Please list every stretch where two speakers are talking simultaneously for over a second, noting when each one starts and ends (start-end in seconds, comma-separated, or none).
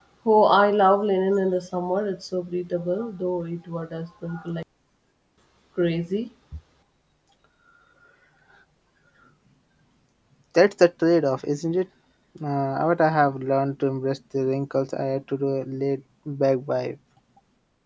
none